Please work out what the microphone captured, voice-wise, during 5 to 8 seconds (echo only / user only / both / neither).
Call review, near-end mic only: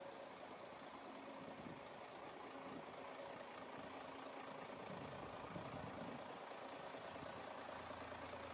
neither